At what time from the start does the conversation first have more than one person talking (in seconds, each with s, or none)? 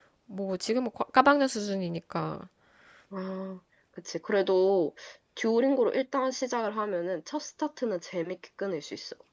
none